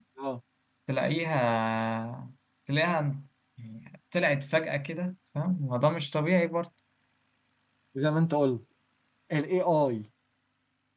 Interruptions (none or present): none